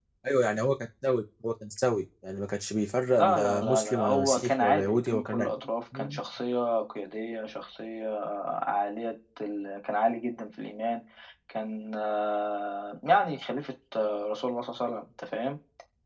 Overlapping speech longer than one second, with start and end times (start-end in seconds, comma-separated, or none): 3.1-6.2